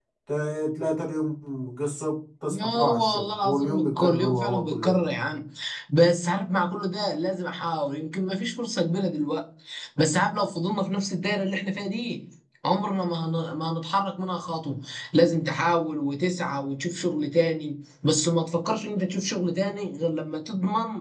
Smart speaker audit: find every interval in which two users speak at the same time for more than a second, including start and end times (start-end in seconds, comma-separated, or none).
2.5-5.0